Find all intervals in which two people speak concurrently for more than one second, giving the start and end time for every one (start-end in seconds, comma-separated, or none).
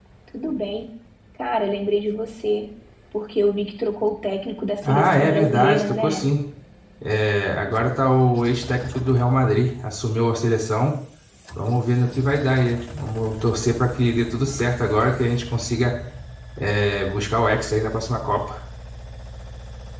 4.8-6.3